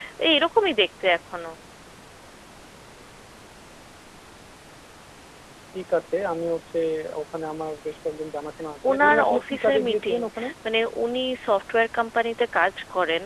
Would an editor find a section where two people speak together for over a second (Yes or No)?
Yes